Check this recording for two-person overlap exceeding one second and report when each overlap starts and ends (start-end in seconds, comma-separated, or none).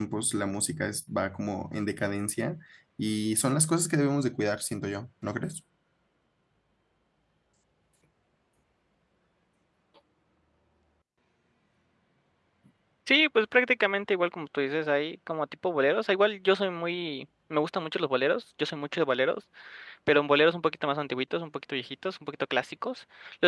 none